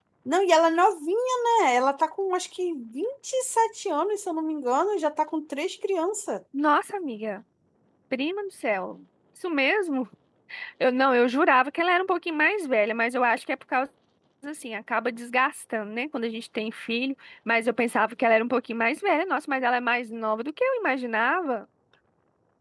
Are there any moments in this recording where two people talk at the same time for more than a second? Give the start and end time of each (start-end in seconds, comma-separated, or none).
none